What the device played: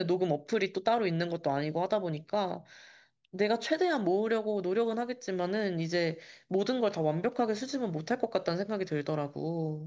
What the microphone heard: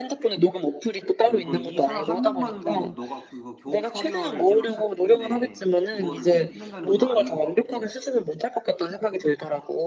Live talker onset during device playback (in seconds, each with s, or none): 1.2 s